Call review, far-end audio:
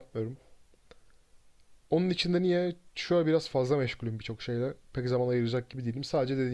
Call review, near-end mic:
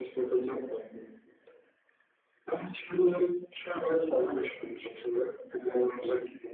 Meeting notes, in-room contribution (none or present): none